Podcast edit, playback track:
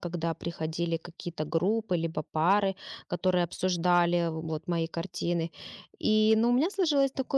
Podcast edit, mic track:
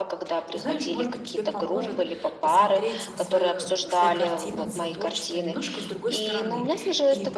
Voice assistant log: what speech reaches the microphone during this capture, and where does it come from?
both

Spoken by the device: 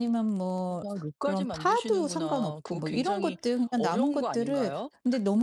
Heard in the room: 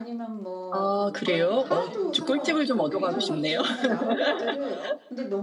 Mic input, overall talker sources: both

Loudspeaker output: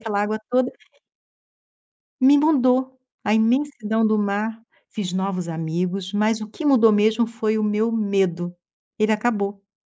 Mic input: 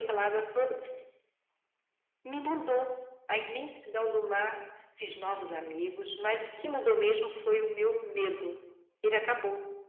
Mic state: echo only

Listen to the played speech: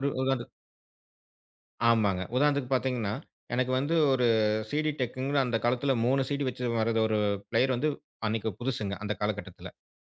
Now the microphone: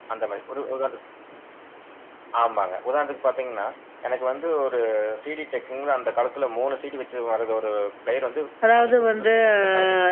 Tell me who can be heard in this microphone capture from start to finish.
both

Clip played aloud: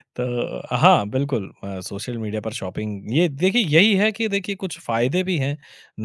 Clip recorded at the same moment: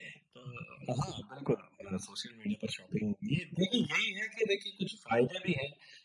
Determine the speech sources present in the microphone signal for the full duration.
echo only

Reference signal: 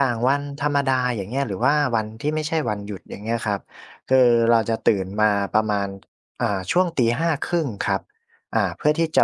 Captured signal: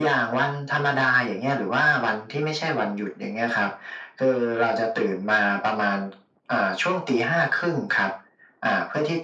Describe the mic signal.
echo only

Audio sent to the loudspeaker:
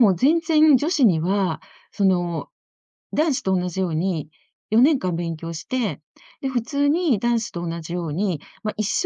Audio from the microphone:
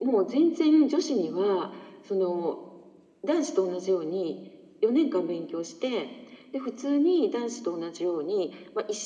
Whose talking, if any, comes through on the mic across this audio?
echo only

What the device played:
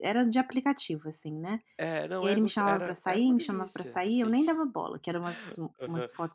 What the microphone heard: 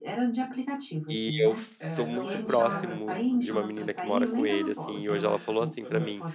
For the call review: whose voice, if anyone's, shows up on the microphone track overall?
both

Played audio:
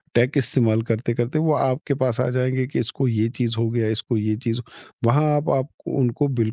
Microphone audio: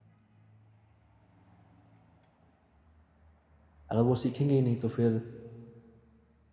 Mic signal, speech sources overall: user only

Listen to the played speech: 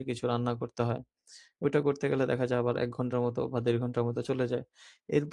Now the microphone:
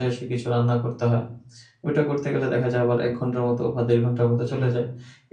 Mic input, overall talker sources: echo only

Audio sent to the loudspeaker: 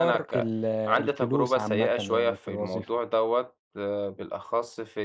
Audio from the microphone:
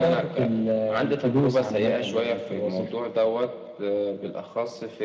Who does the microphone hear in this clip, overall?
echo only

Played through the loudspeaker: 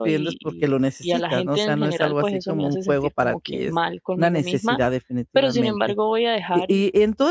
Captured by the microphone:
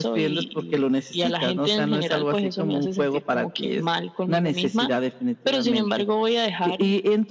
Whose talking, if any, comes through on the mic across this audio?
echo only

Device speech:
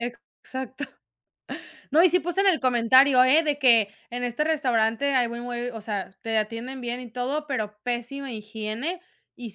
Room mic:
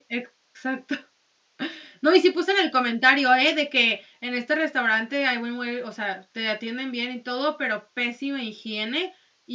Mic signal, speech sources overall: echo only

